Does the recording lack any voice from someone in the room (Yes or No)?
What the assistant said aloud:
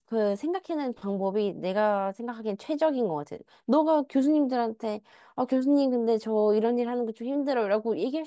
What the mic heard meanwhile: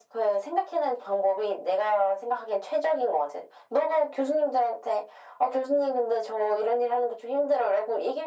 Yes